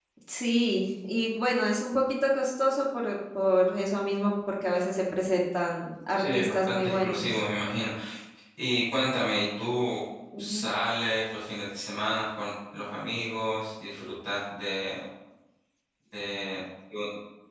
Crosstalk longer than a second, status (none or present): present